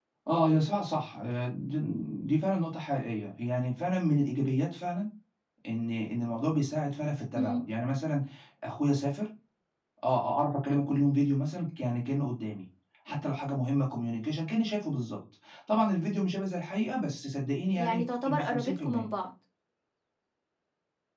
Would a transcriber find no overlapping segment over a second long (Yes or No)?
No